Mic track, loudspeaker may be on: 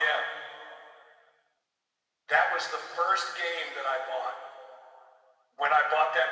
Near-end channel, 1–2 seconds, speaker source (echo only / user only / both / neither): neither